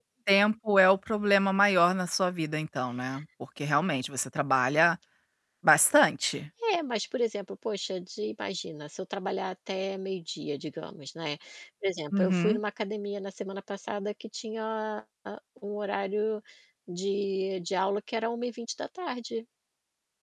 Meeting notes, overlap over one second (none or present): none